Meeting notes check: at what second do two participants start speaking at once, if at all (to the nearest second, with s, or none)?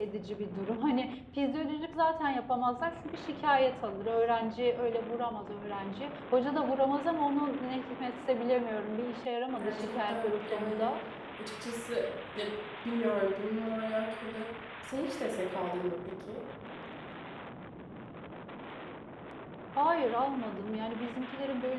10 s